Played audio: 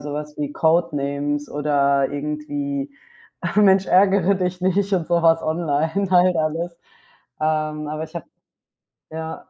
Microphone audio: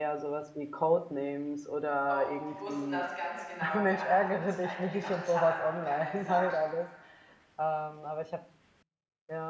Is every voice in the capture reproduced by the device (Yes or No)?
No